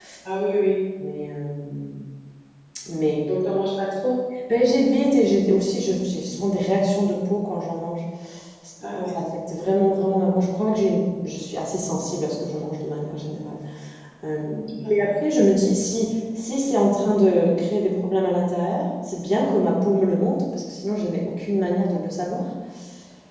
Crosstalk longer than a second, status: none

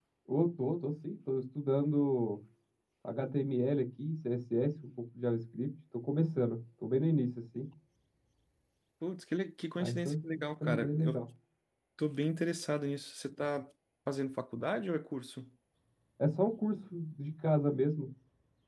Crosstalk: present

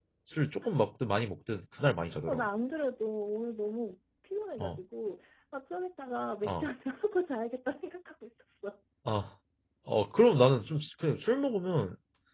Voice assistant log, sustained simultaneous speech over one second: none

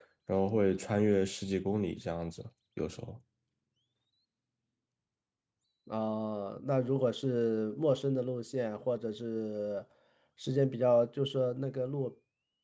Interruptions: none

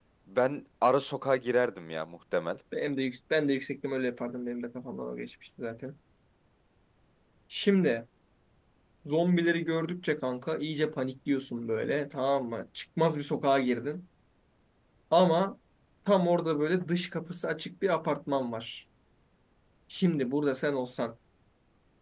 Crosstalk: none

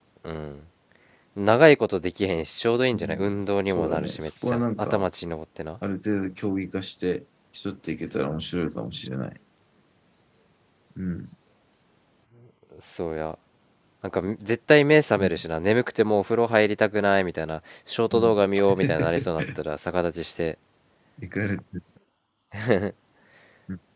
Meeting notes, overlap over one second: present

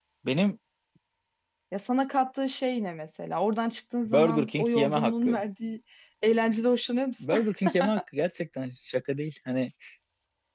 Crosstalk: present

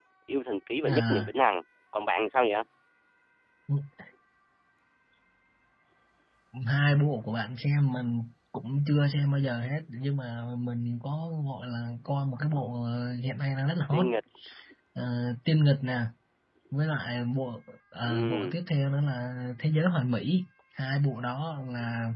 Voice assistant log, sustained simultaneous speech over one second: none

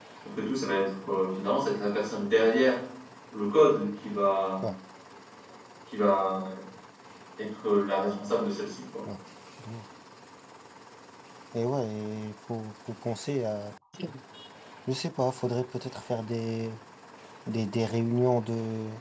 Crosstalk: none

